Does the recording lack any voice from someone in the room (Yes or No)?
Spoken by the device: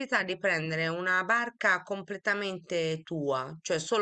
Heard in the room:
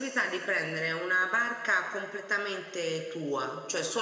Yes